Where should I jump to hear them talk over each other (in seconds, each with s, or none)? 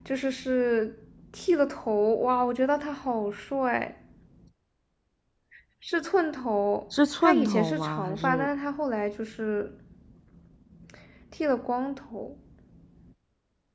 6.9 s